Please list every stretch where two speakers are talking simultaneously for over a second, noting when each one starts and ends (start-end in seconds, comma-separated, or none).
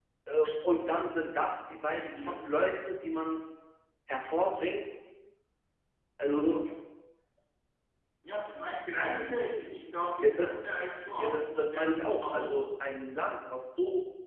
11.2-12.7